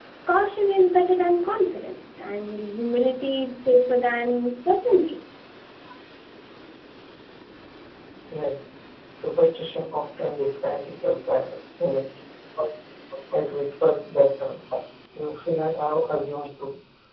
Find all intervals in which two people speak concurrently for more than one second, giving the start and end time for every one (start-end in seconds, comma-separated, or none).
none